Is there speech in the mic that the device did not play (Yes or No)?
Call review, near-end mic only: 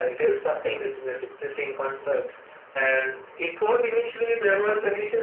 No